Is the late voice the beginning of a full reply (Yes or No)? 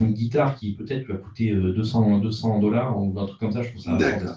Yes